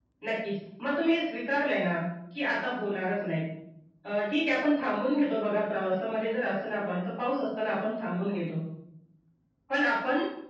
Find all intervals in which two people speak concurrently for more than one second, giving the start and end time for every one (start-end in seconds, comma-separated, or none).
none